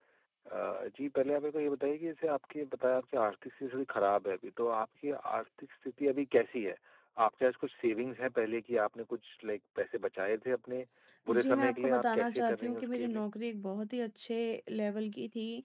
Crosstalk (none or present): present